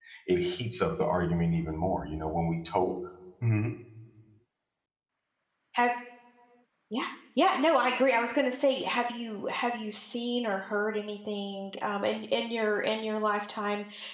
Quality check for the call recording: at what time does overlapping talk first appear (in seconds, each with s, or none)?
none